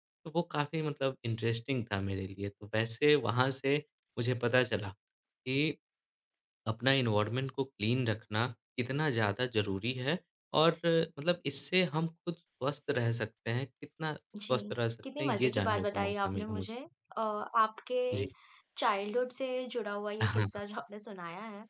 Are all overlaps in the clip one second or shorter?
No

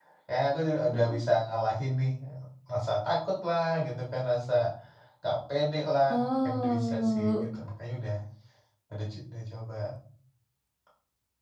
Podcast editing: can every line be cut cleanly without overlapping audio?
No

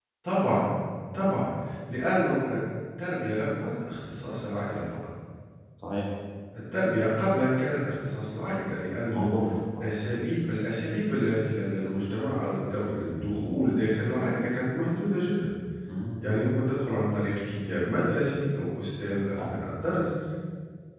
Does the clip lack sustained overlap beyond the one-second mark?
Yes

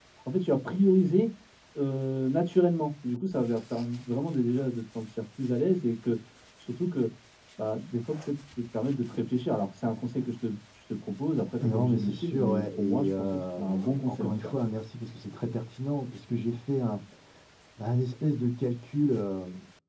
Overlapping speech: Yes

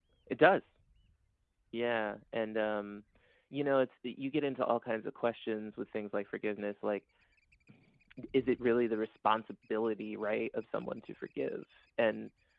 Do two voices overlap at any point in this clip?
No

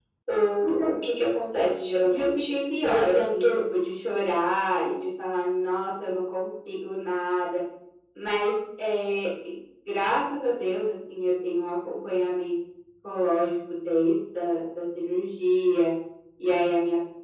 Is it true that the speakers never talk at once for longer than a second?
No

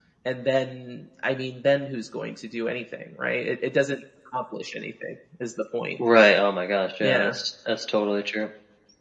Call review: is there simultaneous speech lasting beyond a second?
No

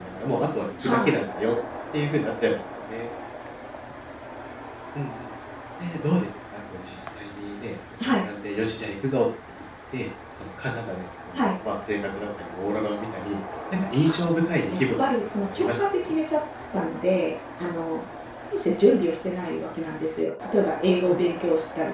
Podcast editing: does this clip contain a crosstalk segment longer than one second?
Yes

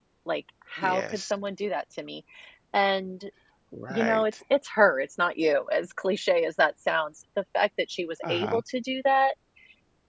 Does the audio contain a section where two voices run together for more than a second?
No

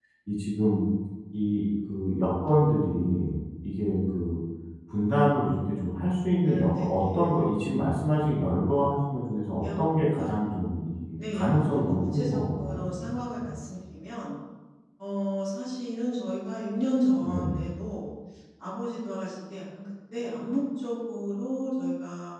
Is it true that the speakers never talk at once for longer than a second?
No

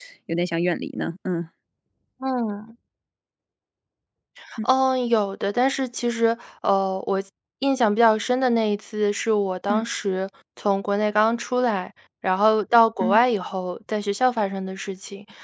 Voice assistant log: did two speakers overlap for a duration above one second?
No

